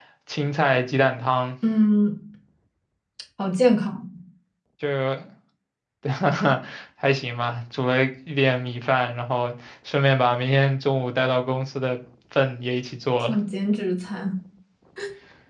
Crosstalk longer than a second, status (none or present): none